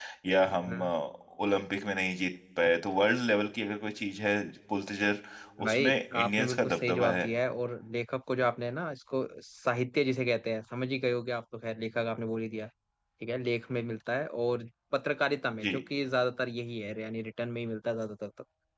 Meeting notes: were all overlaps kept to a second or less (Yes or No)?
No